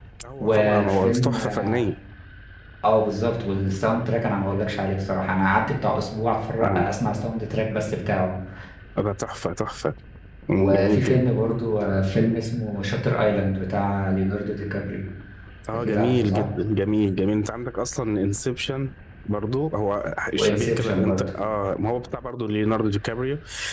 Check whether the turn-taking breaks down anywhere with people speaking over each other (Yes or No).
Yes